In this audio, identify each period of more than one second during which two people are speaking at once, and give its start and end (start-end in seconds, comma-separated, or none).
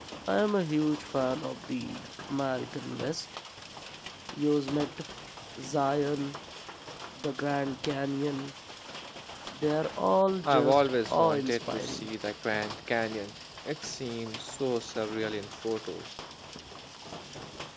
10.4-12.1